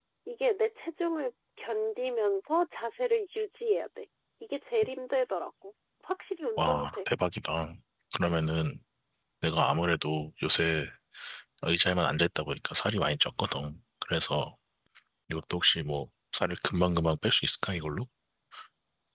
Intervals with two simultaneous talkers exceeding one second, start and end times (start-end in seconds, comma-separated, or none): none